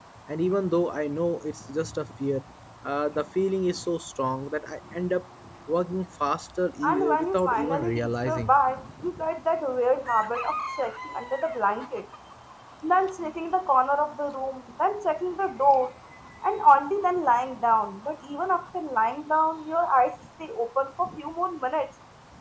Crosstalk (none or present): present